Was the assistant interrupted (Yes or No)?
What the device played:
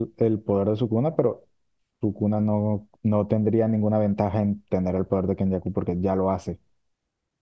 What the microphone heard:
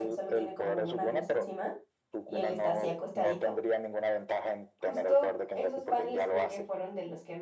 Yes